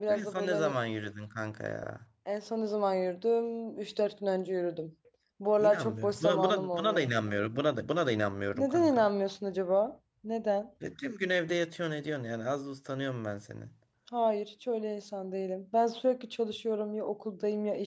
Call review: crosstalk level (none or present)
present